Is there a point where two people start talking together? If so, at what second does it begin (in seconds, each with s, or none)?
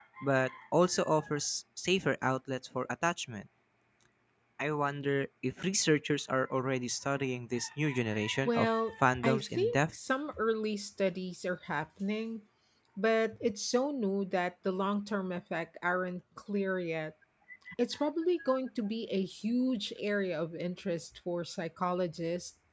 8.4 s